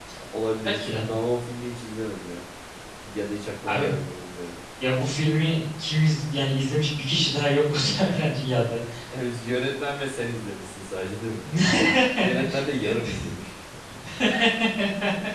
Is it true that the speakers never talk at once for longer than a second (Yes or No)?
Yes